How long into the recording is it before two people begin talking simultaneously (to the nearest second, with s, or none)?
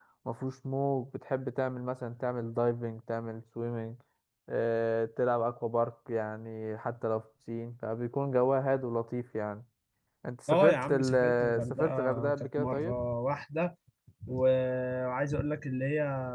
10 s